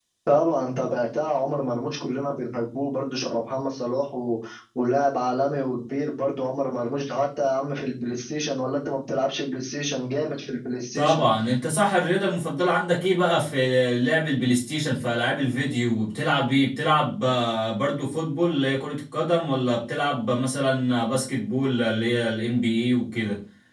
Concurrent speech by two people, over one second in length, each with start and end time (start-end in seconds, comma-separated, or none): none